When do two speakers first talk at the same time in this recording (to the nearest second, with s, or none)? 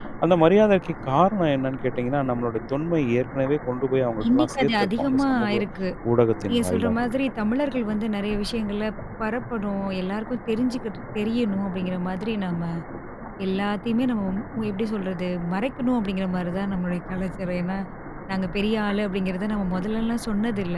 4 s